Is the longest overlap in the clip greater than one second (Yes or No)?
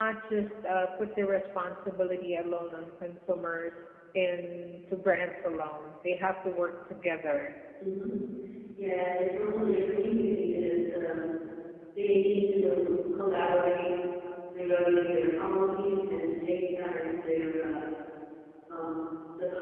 No